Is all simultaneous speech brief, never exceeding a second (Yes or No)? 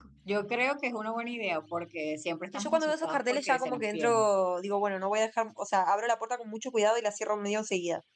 No